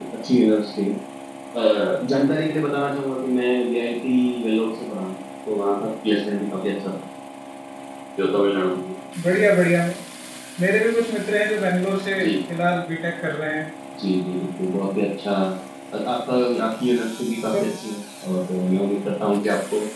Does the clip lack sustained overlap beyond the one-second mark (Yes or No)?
Yes